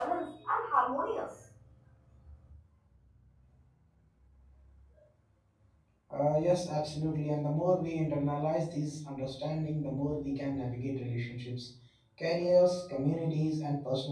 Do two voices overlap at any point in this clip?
No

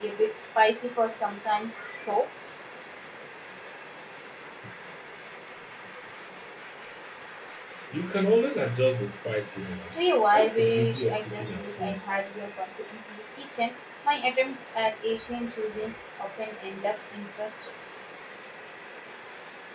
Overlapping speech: Yes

